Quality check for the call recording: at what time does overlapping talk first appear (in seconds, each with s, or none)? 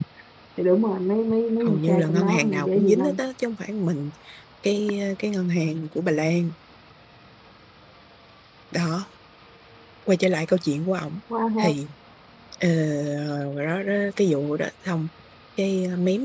1.6 s